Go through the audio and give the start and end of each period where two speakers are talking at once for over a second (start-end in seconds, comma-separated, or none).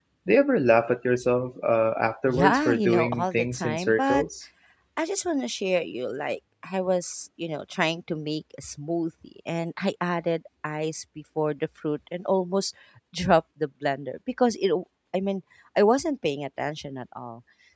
2.3-4.2